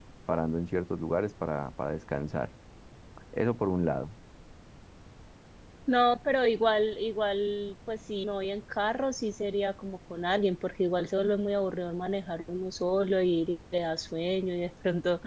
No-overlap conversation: Yes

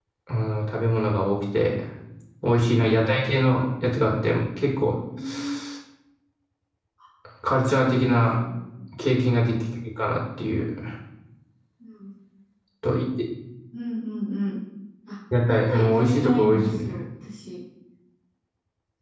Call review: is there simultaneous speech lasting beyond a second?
Yes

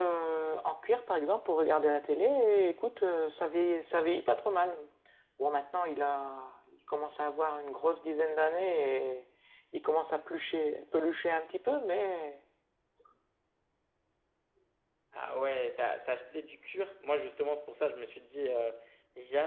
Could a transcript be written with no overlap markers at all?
Yes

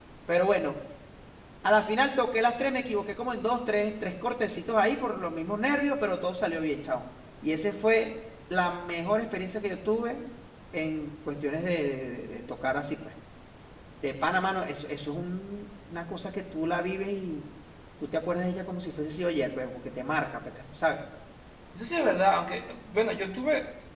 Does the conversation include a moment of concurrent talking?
No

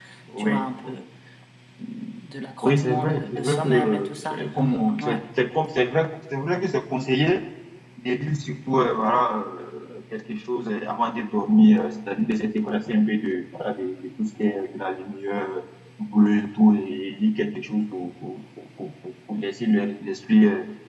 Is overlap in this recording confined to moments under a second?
No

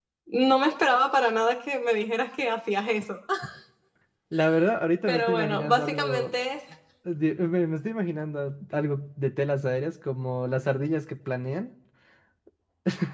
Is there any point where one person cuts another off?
Yes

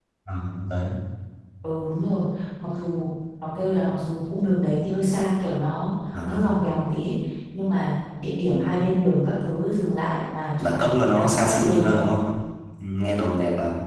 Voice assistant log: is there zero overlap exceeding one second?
No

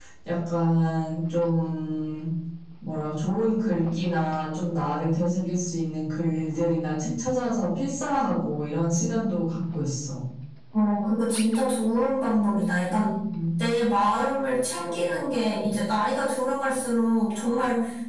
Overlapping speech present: No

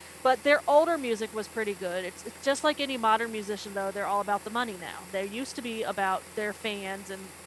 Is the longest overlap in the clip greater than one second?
No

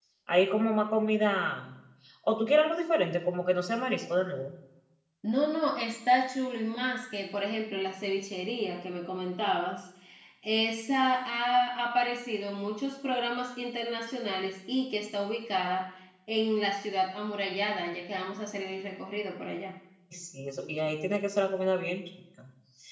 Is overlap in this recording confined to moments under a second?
Yes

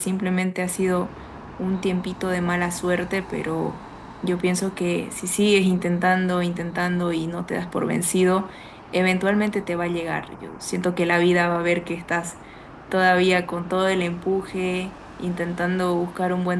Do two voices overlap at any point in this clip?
No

